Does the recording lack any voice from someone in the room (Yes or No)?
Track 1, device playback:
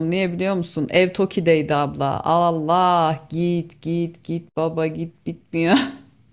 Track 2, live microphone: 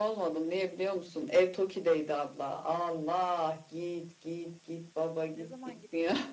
No